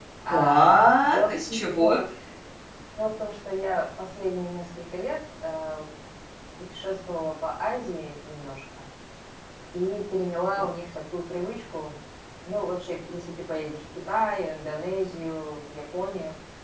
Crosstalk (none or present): present